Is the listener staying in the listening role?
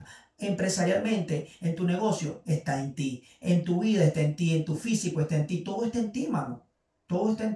Yes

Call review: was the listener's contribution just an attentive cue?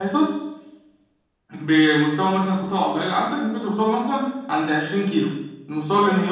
Yes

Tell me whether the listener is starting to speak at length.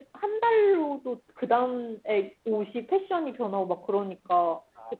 No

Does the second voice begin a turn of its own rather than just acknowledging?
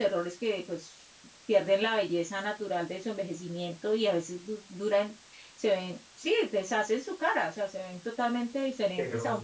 No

